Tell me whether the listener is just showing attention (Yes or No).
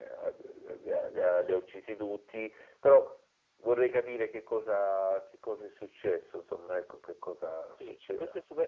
No